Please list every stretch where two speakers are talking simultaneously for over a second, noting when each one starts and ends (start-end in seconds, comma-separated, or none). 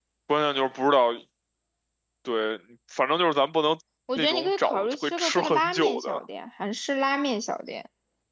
4.2-6.2